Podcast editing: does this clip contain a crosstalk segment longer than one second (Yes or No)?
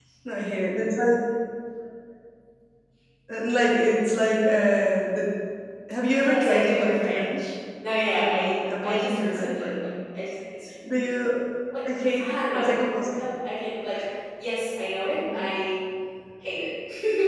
Yes